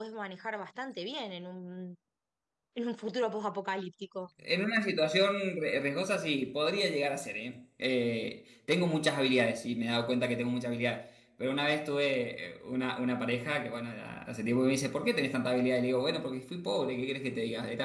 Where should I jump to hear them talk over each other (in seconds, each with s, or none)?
none